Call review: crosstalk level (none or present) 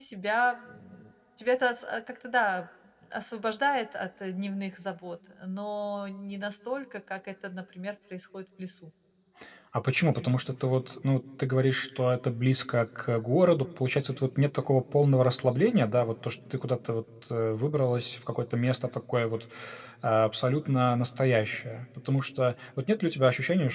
none